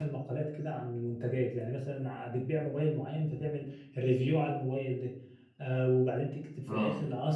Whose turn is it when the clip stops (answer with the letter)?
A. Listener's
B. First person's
B